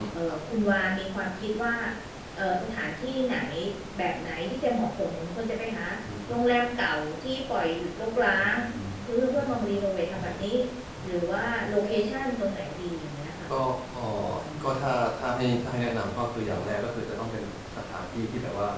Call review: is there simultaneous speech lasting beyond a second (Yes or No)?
No